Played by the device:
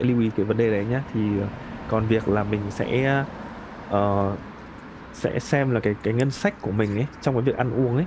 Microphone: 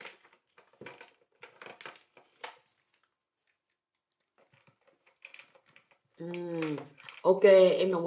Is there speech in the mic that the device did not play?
Yes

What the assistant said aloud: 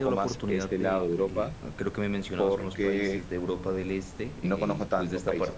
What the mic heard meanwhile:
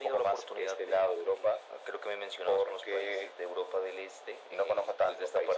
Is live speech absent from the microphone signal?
Yes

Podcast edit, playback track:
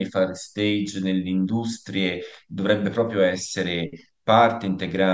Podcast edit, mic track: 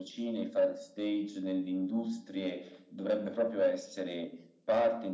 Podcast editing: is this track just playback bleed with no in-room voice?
Yes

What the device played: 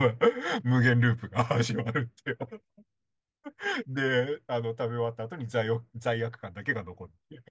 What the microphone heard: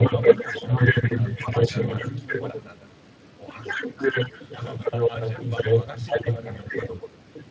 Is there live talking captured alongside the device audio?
Yes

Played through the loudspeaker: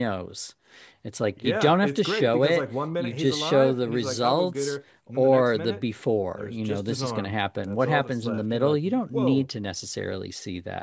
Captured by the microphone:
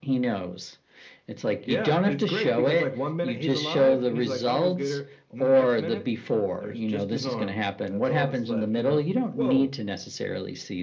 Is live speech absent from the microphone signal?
Yes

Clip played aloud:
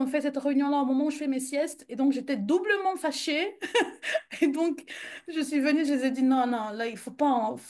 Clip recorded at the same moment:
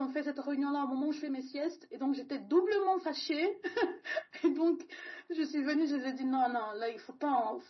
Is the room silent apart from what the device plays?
Yes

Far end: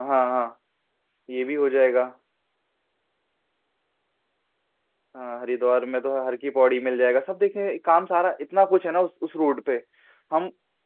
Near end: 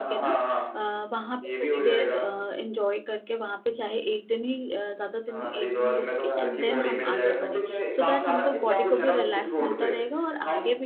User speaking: Yes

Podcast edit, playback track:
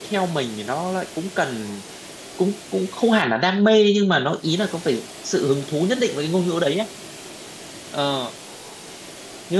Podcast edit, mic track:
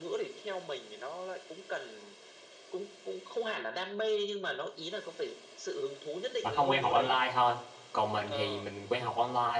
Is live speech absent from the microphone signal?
No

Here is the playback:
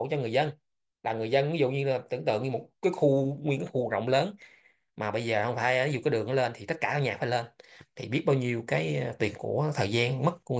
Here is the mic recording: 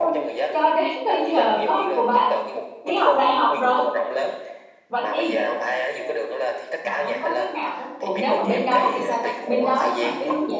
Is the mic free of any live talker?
No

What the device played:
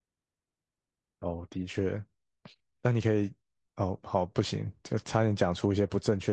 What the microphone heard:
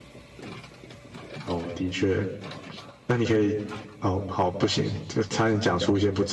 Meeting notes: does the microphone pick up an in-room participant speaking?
No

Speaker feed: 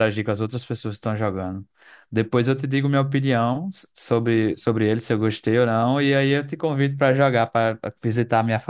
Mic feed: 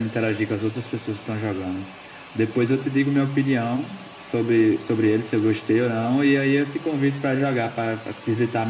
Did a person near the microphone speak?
No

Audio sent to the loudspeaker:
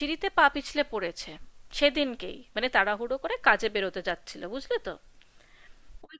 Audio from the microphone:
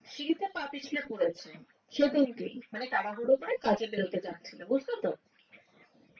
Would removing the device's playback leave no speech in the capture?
Yes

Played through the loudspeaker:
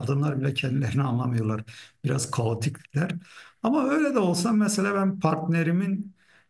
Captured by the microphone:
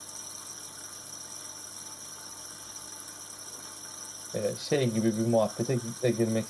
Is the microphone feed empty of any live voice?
No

